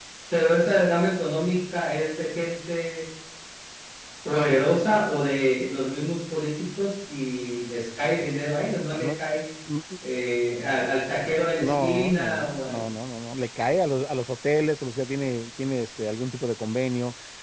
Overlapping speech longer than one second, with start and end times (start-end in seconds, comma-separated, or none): 11.6-12.9